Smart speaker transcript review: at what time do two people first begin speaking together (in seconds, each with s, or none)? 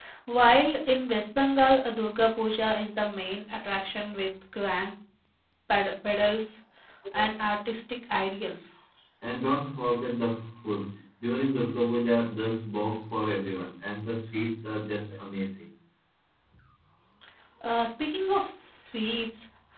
none